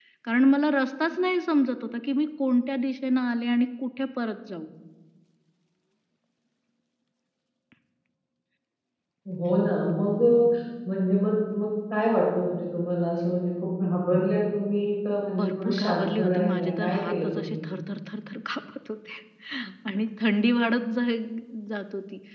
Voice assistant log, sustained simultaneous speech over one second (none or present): present